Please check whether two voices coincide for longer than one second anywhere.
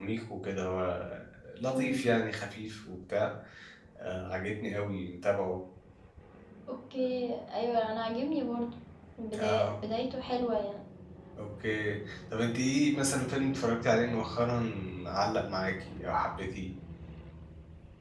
No

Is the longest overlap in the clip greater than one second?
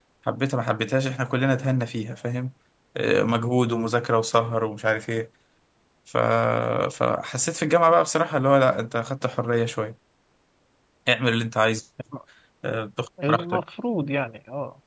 No

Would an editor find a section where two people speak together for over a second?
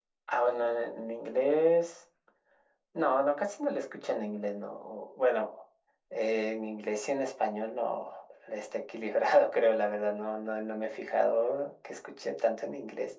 No

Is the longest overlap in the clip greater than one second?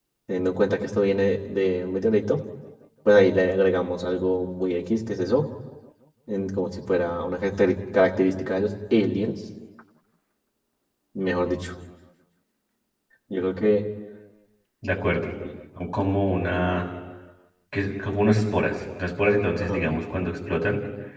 No

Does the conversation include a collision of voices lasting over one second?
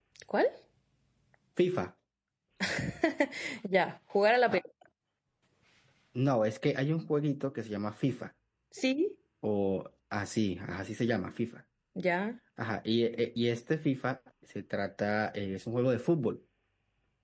No

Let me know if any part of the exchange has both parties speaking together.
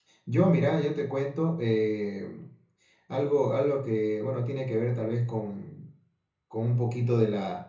No

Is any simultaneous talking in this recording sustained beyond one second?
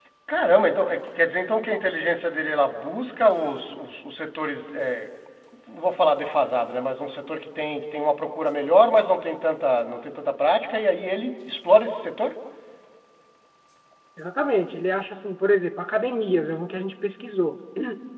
No

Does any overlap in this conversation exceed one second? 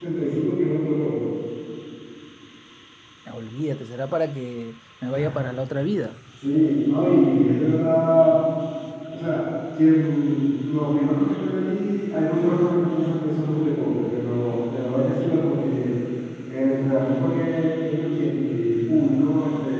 No

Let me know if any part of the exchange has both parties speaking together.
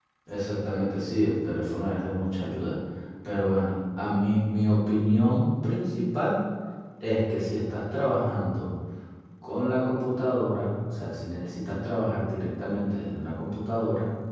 No

